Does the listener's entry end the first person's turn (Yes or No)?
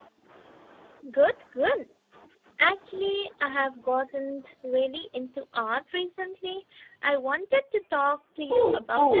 Yes